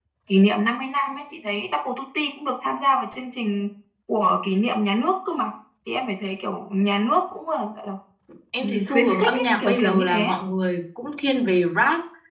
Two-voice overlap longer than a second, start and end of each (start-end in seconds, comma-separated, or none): 8.6-10.3